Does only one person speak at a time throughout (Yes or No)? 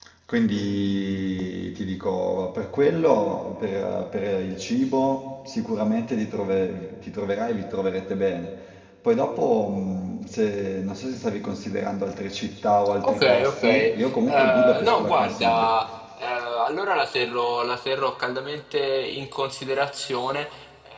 No